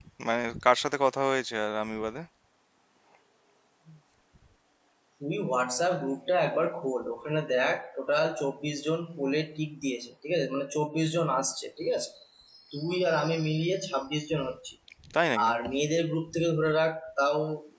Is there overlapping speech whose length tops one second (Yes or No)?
No